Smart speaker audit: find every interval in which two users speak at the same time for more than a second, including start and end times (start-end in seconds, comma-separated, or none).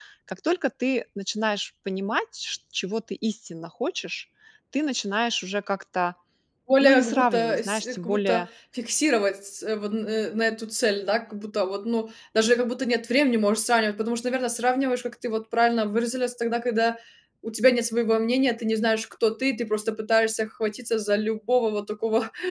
6.8-8.4